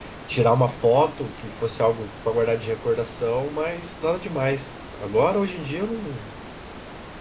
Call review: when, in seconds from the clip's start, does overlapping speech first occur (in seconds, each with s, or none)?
none